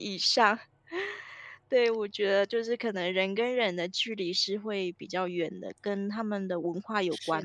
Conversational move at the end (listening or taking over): taking over